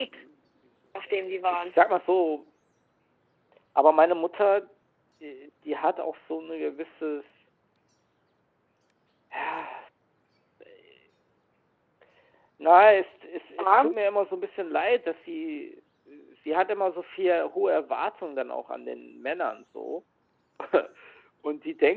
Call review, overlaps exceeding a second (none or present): none